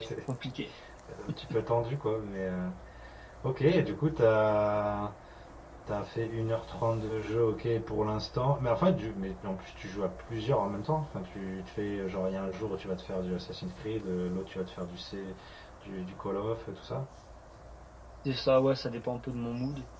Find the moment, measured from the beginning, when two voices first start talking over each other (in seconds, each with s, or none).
none